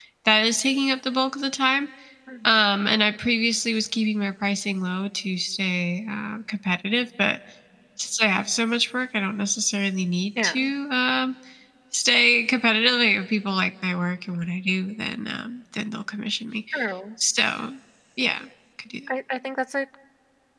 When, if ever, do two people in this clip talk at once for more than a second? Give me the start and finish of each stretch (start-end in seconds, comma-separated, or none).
none